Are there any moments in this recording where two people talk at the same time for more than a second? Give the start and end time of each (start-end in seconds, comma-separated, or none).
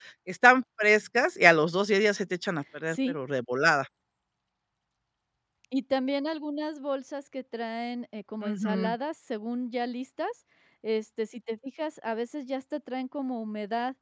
none